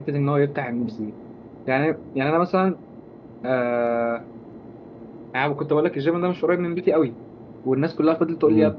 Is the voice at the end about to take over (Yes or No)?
No